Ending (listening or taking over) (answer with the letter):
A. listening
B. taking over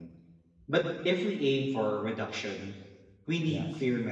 A